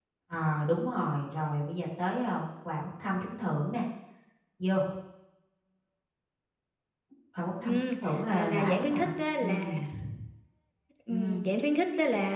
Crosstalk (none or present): present